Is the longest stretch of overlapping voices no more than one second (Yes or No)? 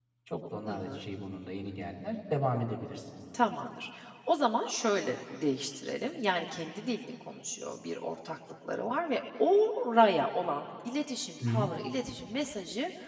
Yes